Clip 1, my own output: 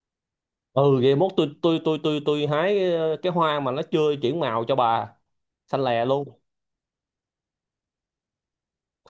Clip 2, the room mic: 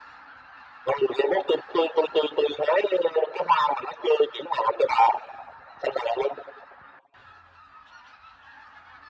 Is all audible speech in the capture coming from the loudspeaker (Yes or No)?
Yes